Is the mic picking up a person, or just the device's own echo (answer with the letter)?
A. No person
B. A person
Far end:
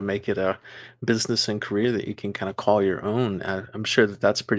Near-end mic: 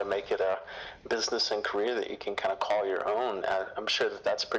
A